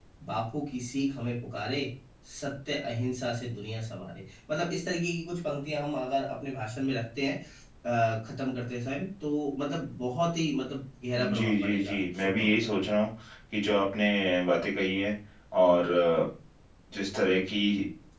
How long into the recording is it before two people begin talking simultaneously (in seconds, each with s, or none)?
11.1 s